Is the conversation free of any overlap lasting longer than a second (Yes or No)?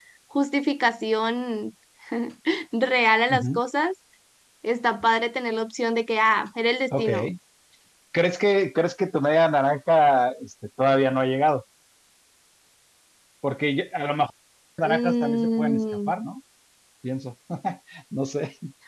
No